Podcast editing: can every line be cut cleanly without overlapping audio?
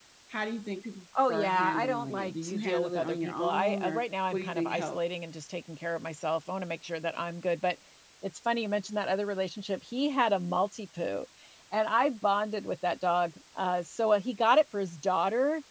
No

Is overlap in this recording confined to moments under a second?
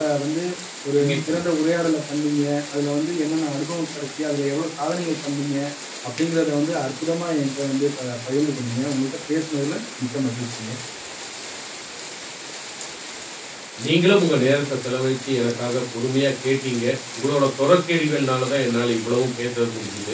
Yes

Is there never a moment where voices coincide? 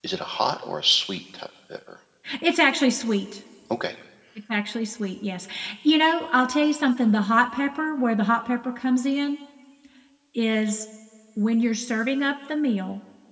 Yes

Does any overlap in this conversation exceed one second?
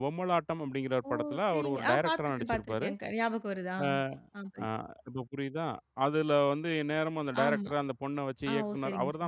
Yes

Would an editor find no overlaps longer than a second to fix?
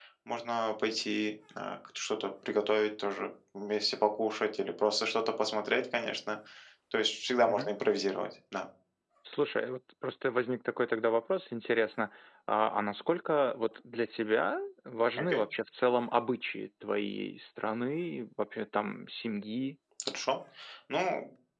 Yes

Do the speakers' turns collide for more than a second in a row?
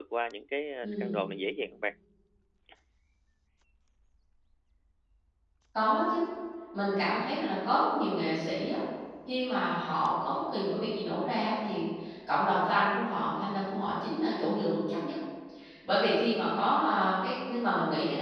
No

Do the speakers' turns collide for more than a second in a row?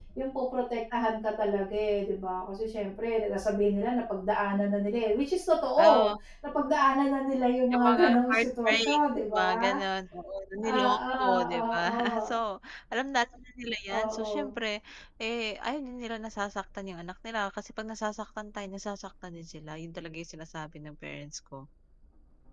Yes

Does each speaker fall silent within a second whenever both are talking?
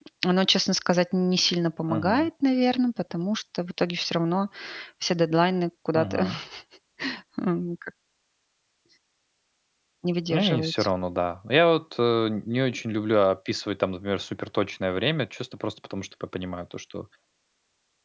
Yes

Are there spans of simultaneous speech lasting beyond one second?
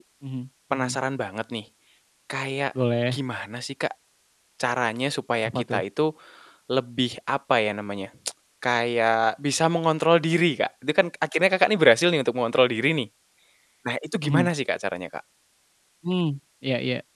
No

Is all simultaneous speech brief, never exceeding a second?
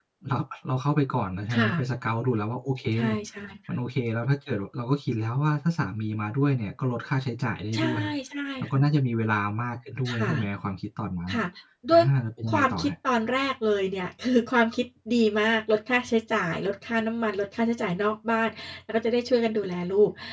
Yes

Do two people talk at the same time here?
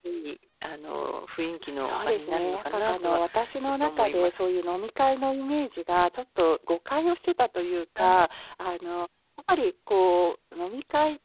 Yes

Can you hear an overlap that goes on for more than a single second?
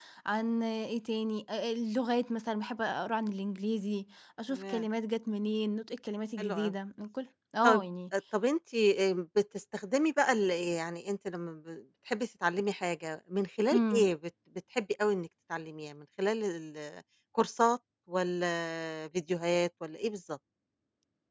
No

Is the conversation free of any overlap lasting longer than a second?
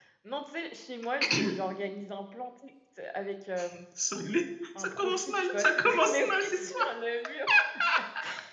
No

